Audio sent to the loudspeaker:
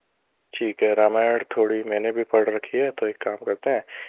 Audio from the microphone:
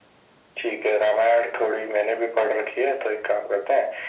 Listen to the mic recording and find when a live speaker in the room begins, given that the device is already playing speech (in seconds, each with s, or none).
none